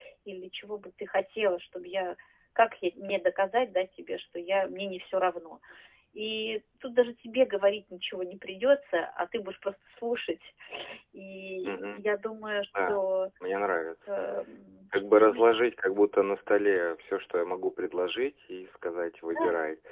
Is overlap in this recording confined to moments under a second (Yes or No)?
Yes